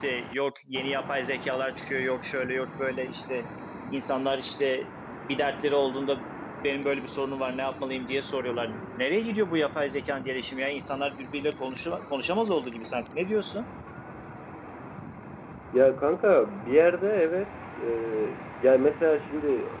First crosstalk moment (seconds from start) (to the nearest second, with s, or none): none